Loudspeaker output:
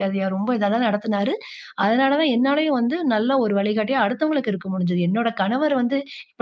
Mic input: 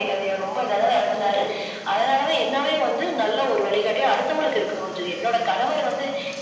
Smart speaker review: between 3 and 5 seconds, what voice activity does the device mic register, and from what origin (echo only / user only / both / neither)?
echo only